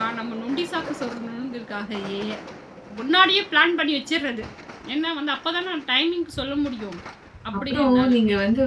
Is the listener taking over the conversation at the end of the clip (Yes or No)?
Yes